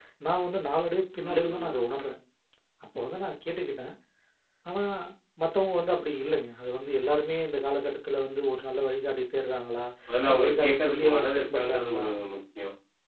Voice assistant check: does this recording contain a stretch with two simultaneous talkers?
Yes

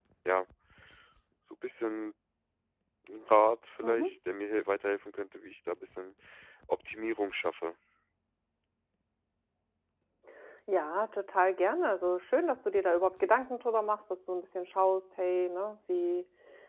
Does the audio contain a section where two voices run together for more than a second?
No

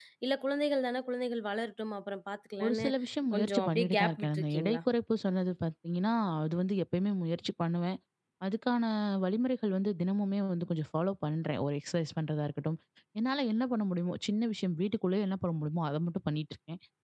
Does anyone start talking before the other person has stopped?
Yes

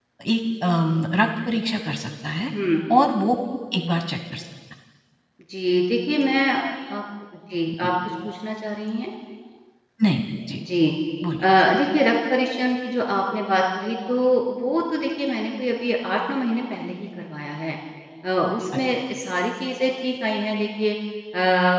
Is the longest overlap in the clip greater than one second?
No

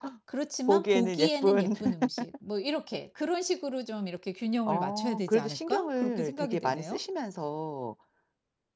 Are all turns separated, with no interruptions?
No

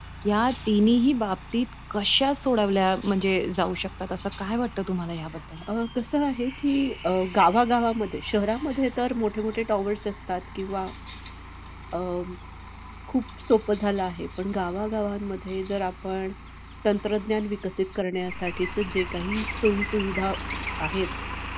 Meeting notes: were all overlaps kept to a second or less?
Yes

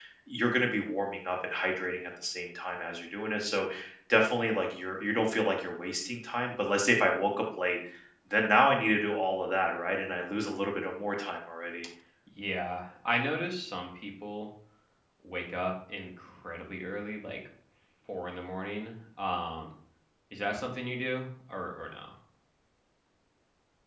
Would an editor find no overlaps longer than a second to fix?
Yes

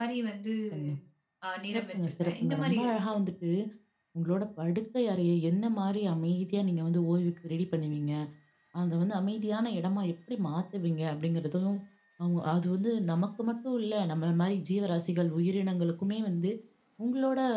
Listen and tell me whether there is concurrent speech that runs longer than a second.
Yes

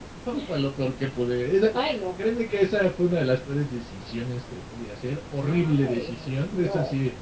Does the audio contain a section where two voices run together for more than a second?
Yes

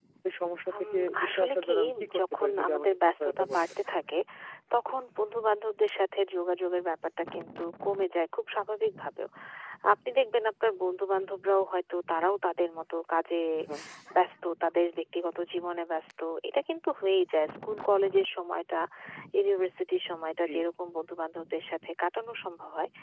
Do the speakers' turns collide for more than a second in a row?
Yes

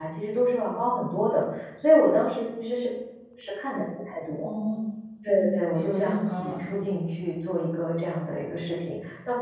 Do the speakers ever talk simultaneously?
Yes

